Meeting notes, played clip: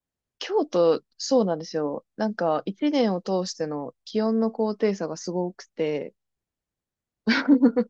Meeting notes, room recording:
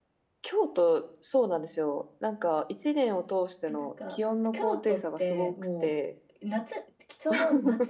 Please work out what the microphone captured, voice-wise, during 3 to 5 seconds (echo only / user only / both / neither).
both